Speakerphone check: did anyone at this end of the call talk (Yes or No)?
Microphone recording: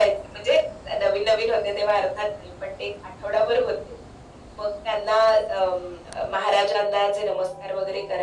No